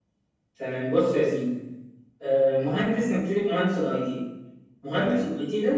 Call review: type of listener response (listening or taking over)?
listening